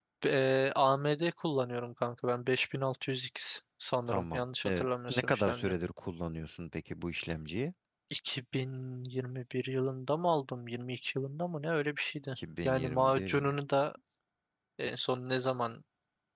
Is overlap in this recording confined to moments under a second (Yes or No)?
No